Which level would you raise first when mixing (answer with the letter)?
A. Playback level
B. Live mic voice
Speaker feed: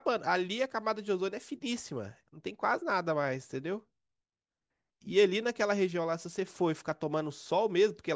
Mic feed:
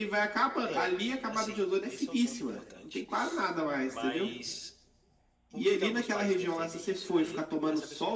B